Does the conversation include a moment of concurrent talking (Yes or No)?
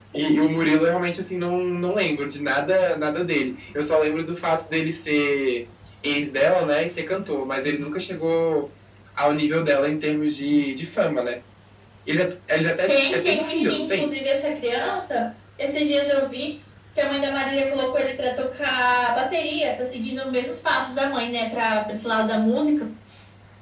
Yes